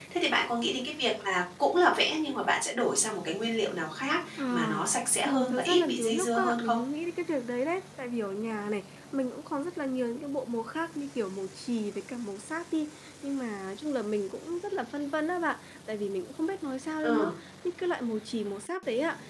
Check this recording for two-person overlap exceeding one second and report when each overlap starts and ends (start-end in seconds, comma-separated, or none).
5.2-6.8